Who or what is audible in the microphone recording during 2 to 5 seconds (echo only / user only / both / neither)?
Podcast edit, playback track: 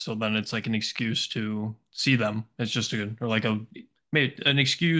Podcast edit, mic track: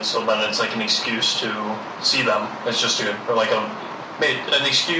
echo only